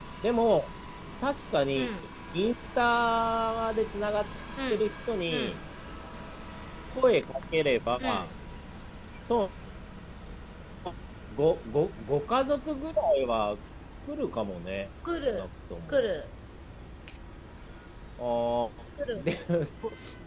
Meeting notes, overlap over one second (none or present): none